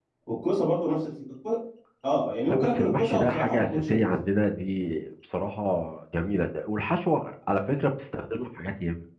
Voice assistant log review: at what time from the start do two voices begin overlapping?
2.5 s

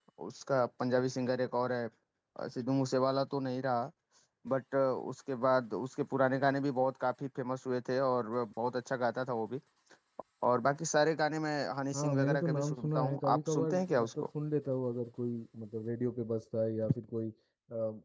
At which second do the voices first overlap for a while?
11.9 s

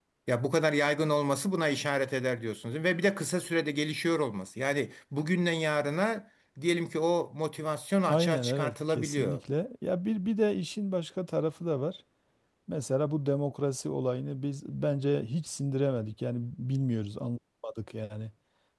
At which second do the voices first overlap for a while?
8.1 s

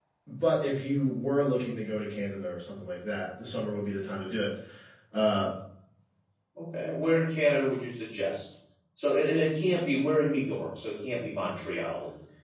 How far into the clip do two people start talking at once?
none

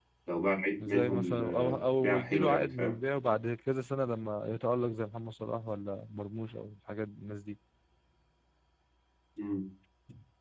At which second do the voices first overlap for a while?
0.9 s

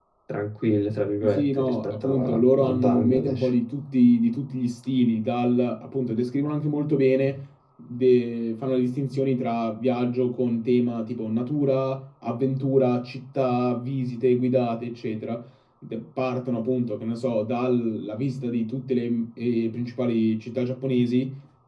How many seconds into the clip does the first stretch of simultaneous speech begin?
1.2 s

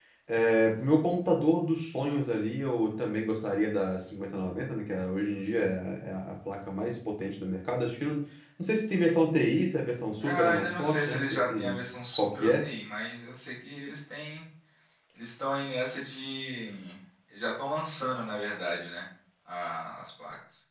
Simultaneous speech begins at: 10.2 s

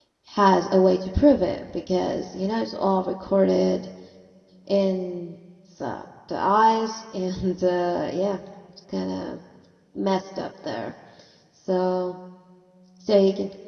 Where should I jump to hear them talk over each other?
none

